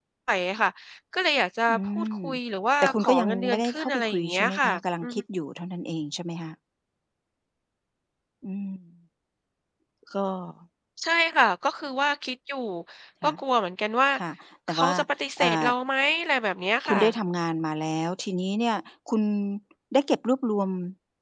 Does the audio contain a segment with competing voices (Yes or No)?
Yes